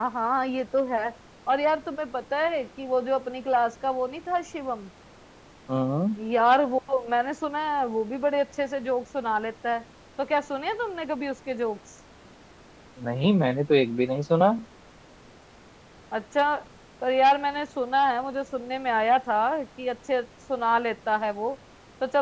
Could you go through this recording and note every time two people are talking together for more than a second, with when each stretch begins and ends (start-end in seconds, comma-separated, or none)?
none